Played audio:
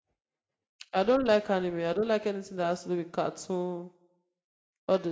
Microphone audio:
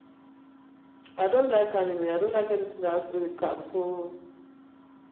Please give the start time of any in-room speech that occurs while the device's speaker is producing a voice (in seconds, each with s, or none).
none